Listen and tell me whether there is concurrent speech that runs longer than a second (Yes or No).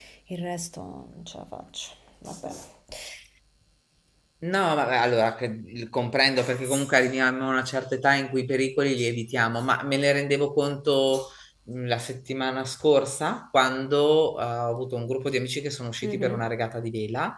No